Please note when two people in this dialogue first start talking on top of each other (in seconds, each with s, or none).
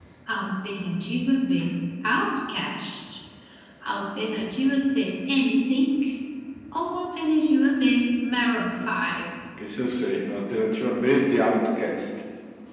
none